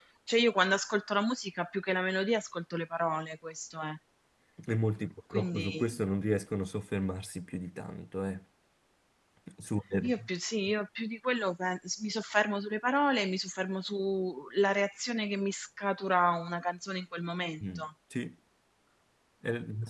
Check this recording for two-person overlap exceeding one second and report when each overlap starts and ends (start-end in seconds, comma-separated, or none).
none